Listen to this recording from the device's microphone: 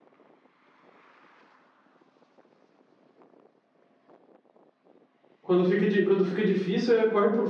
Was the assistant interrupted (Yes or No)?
Yes